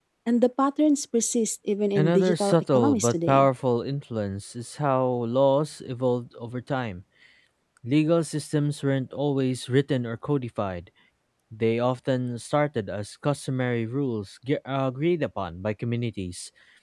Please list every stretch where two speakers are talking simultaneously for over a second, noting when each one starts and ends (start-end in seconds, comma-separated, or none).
2.0-3.5